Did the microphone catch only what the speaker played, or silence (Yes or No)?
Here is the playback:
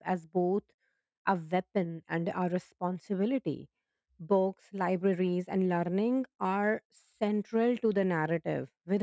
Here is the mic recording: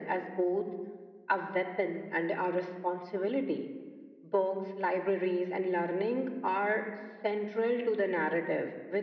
Yes